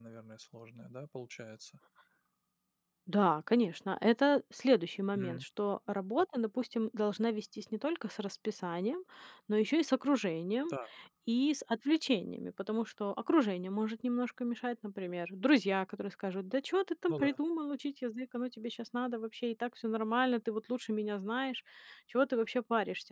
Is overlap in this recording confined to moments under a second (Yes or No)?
Yes